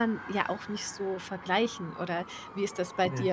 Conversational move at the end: listening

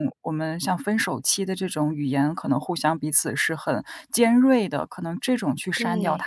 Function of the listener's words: listening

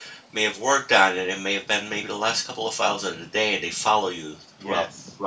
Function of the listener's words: listening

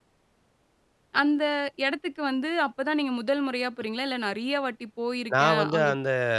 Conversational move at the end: taking over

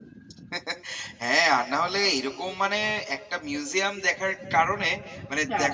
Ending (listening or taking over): listening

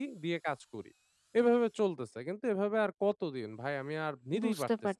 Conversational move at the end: taking over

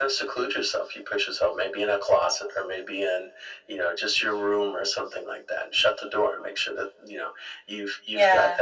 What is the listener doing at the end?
listening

